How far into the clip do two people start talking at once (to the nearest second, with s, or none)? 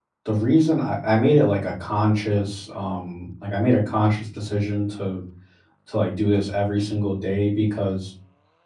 none